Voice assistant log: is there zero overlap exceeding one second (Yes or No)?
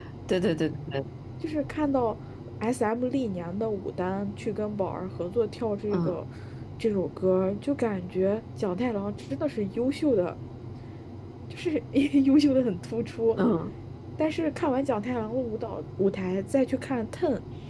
Yes